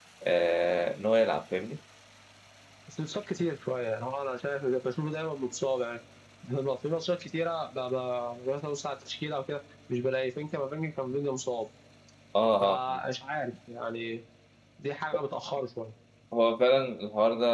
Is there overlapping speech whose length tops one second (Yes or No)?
No